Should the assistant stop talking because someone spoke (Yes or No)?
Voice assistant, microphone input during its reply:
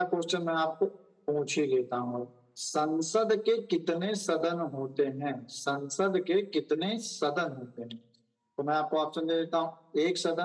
No